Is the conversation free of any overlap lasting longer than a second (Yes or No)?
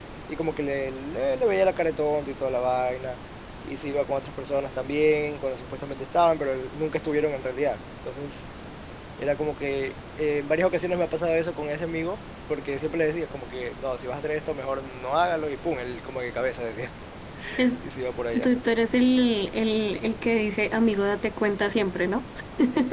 Yes